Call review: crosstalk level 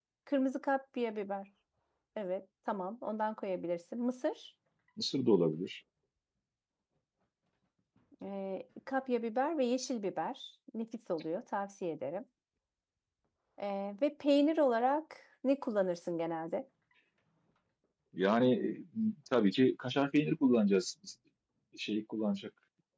none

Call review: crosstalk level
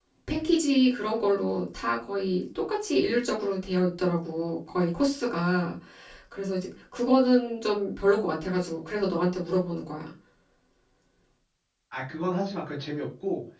none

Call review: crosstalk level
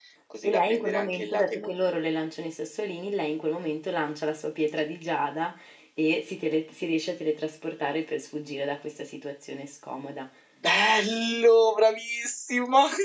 present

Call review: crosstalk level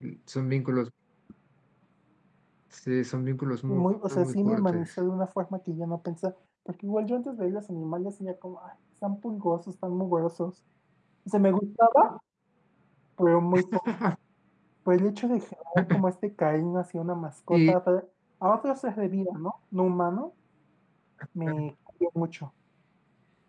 present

